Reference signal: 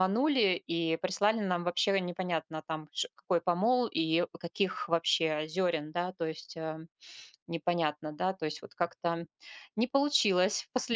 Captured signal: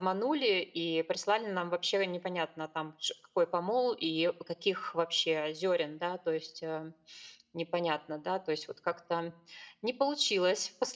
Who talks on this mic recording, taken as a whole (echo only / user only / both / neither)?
echo only